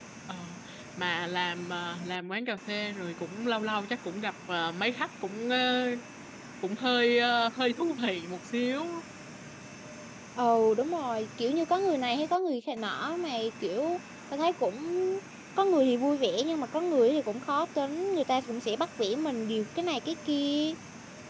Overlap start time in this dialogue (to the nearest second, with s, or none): none